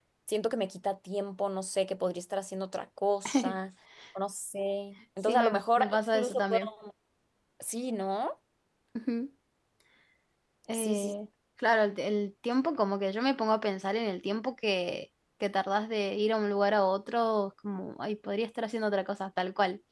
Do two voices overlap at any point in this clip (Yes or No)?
Yes